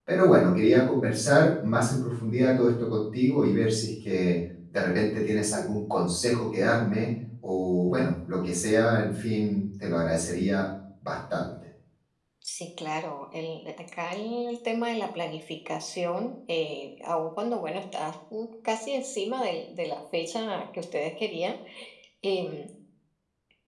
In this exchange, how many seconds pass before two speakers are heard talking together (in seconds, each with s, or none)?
none